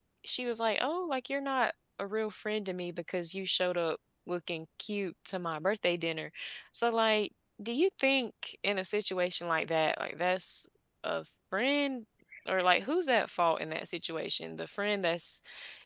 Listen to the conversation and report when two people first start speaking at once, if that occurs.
none

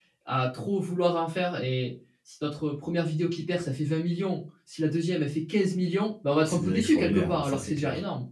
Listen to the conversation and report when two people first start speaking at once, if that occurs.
6.4 s

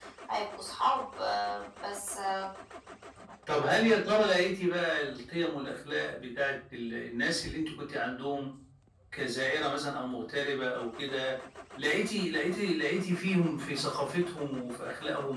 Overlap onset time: none

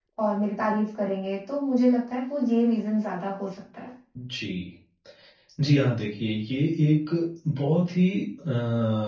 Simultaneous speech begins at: none

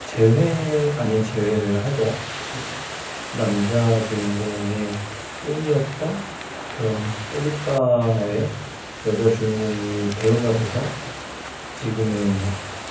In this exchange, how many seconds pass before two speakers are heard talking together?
none

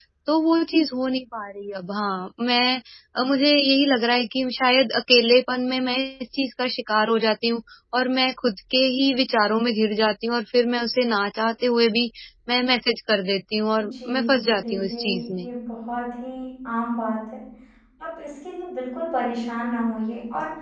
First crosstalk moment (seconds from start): 13.8 s

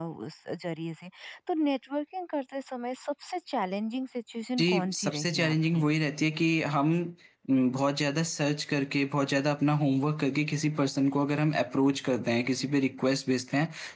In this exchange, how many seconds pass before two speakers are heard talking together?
4.6 s

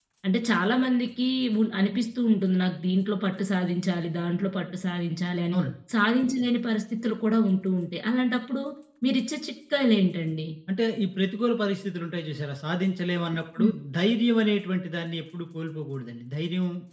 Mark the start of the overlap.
none

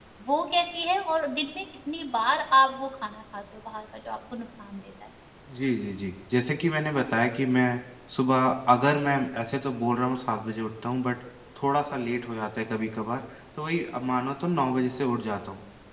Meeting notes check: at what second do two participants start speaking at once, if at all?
none

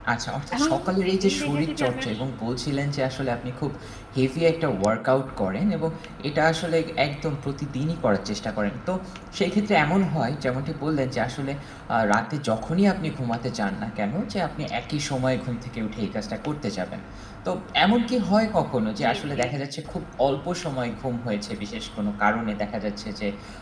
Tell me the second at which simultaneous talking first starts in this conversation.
0.6 s

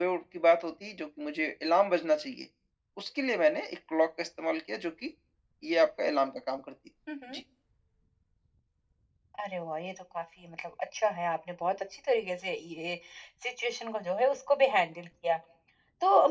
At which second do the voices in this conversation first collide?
none

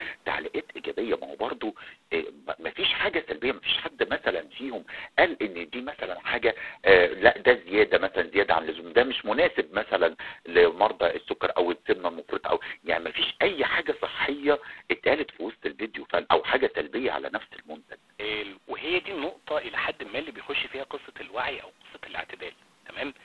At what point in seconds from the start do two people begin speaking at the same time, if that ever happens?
none

